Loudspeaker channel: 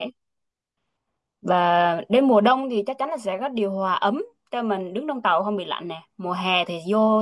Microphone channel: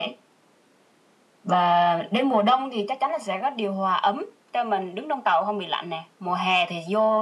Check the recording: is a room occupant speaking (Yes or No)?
No